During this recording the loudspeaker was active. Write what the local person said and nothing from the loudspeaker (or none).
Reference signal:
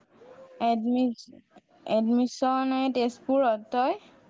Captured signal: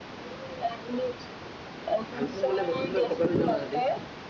ভাল পোং গ'লে বস্তুবিলাক ঘৰ নিব হিহতি